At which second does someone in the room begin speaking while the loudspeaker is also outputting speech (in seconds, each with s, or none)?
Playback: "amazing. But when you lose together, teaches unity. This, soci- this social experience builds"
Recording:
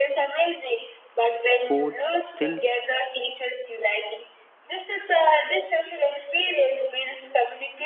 1.4 s